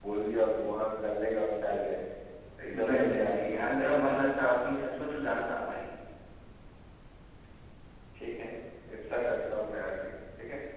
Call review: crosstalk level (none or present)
present